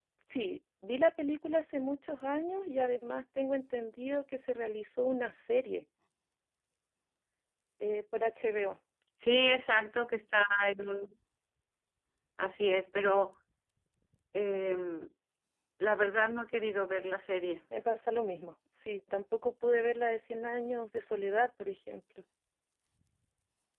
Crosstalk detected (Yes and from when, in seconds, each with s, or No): No